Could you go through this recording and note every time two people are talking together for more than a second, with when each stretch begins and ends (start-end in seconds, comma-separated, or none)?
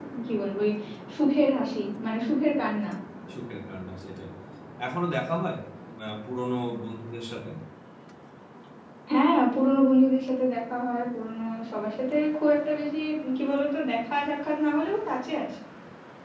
none